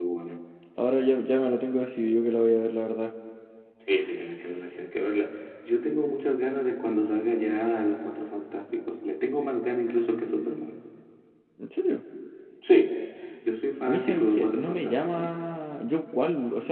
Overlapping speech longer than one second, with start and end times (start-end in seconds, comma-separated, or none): 13.8-15.3